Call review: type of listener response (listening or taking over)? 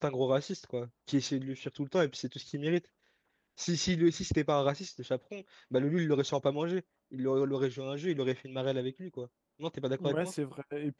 taking over